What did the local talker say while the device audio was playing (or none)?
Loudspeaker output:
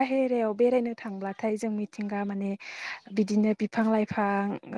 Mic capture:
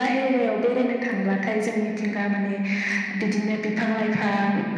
none